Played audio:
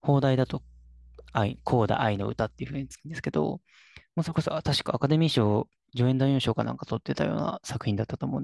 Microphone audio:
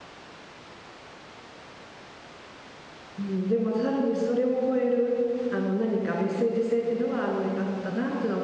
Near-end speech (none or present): present